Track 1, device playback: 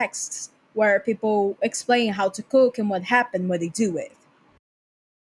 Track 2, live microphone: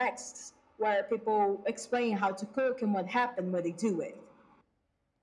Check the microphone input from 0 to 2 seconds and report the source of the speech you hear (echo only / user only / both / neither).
echo only